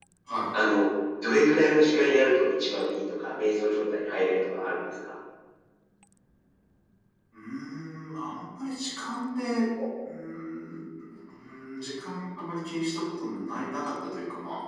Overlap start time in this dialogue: none

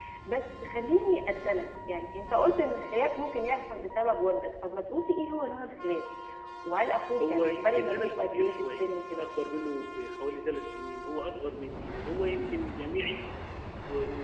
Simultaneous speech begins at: 7.3 s

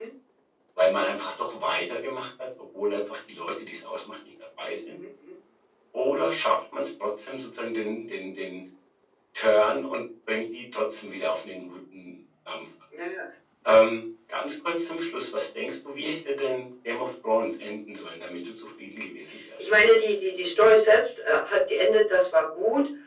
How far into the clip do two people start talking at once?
none

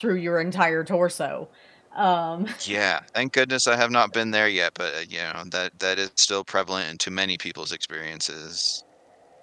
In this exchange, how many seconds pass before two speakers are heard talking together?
none

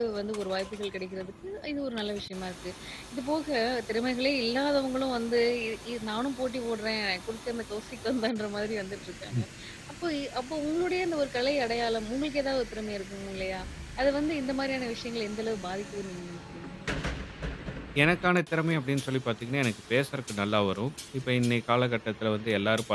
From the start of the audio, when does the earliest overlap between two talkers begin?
none

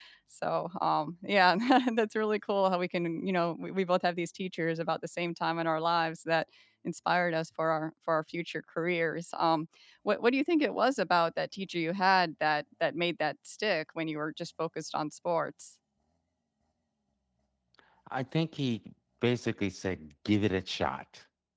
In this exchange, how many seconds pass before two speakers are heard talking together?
none

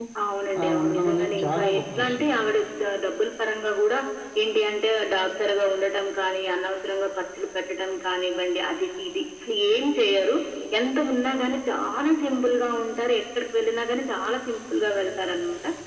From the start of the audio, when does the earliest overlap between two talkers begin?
0.6 s

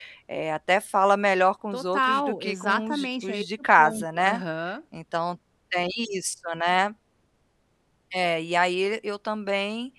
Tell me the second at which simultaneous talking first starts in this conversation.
1.7 s

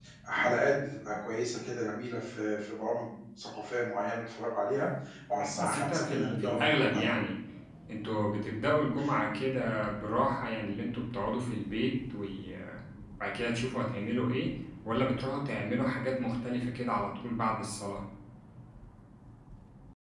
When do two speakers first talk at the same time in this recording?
5.3 s

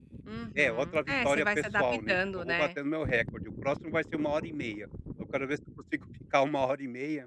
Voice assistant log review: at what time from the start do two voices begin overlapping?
0.6 s

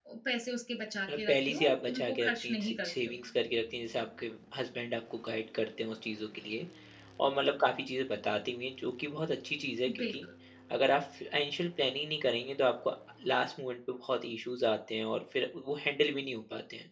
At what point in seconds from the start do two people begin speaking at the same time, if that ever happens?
1.2 s

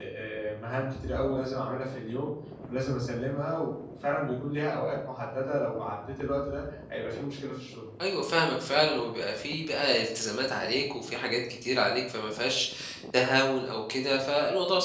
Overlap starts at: none

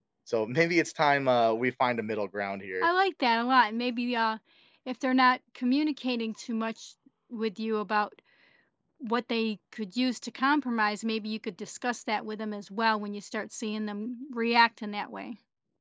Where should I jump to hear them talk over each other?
none

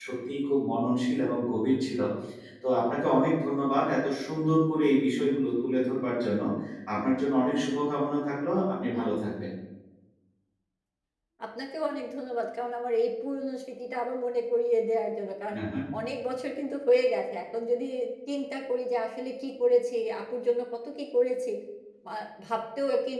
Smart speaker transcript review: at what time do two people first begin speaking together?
none

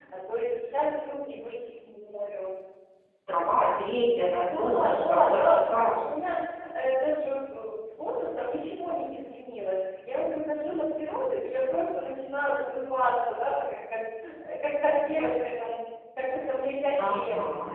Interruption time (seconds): 4.4 s

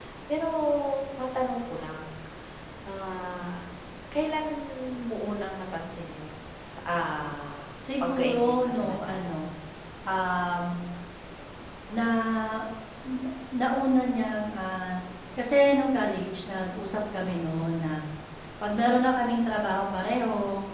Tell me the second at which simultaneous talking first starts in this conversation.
7.8 s

